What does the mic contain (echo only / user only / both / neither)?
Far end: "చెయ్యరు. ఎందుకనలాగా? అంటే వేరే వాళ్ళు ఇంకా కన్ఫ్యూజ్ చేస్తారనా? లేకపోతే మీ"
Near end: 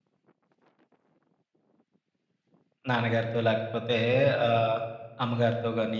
user only